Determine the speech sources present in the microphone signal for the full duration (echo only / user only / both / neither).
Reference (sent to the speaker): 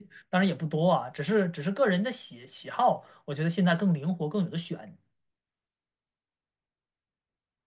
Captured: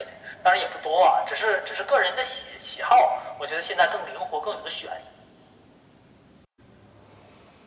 echo only